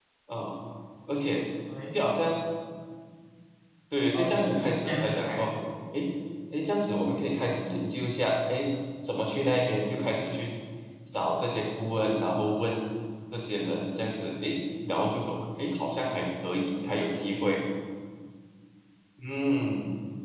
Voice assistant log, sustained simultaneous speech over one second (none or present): present